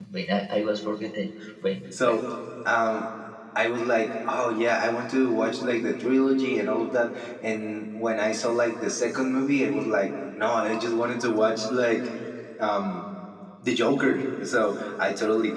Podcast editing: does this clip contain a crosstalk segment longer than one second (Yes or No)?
No